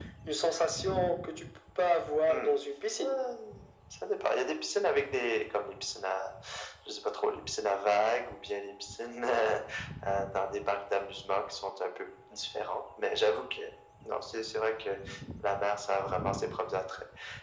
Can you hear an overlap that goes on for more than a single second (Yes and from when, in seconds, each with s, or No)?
No